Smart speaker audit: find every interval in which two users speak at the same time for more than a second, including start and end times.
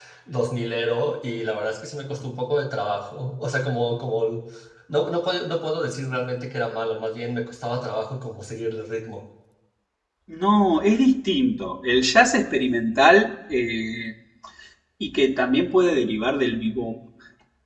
none

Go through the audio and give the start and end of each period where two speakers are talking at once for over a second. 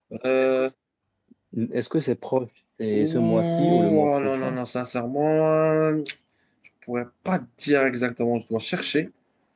2.9-4.6

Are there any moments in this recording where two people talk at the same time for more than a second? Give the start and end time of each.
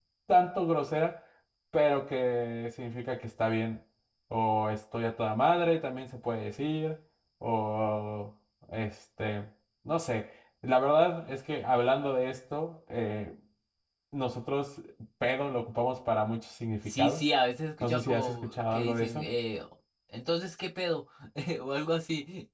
17.8-19.3

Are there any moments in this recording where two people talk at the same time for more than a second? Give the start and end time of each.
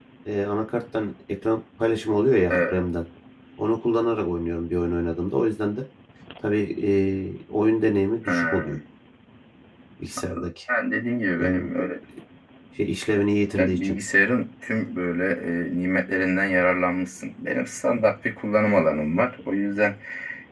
none

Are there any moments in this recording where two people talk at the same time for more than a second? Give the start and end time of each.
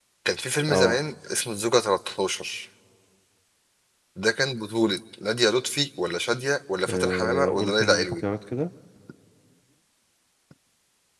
6.9-8.1

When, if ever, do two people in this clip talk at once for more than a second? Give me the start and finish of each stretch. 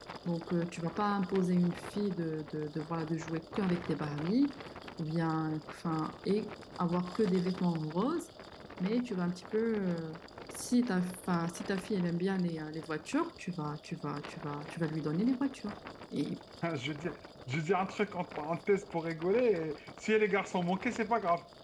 none

